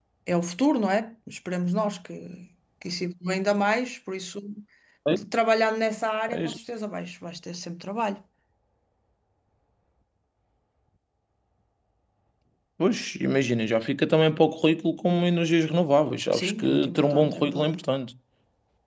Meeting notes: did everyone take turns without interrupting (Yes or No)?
No